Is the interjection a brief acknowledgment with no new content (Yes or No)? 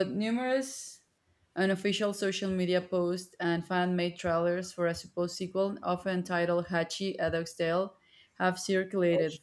Yes